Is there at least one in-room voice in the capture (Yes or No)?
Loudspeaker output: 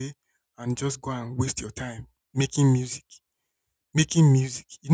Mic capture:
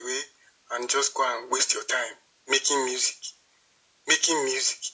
No